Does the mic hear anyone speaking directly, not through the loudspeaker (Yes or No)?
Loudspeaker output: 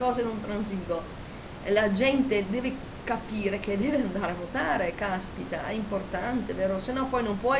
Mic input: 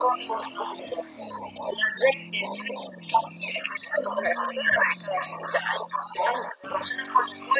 No